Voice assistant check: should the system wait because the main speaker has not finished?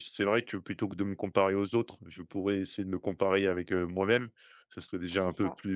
Yes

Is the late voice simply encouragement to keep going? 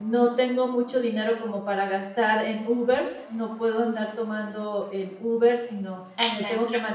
Yes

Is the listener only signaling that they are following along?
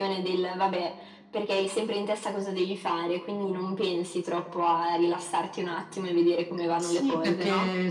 No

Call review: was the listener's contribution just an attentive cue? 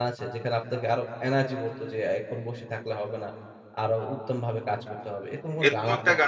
No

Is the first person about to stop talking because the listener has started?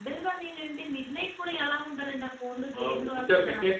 Yes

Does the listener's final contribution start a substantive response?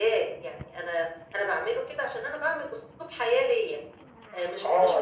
Yes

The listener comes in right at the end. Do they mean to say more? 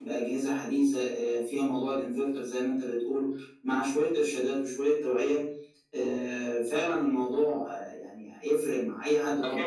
Yes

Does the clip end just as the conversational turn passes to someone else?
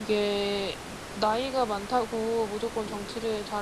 No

